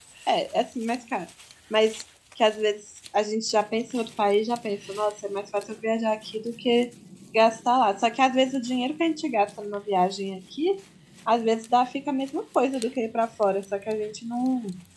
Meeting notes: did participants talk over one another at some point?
No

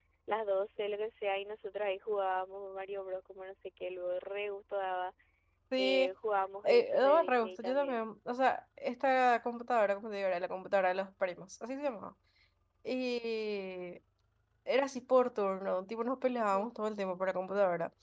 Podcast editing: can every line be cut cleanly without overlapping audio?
No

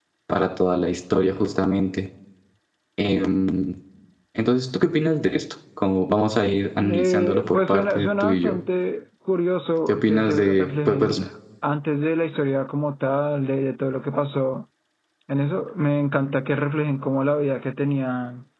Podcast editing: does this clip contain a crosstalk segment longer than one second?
Yes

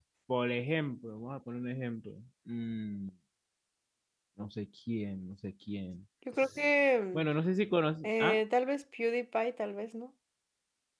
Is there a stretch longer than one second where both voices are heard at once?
No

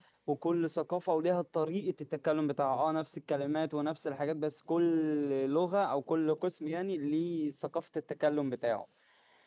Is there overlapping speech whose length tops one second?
No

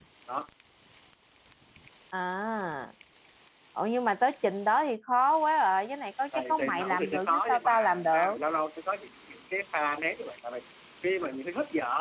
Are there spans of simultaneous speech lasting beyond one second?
Yes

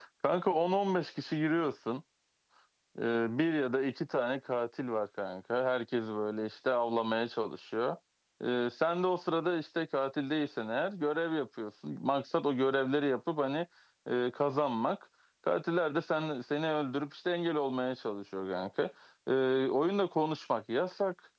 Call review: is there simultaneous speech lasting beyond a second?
No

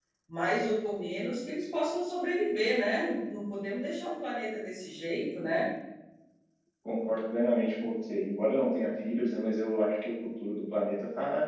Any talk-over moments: No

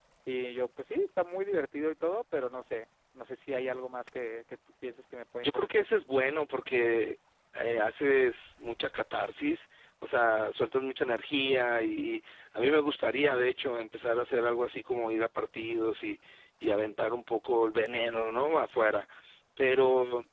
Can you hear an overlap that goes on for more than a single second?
No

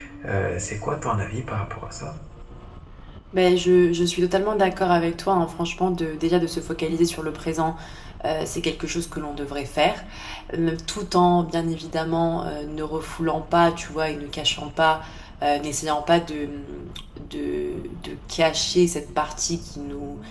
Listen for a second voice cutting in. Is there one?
No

